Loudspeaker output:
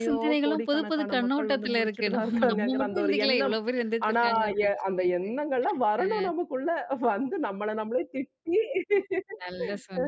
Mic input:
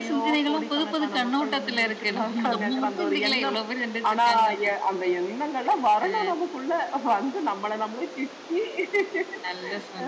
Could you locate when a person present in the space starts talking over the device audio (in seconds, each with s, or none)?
none